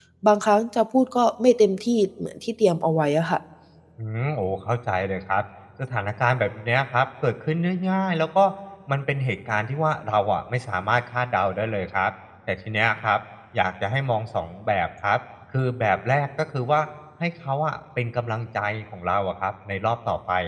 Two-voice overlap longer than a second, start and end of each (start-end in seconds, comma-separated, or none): none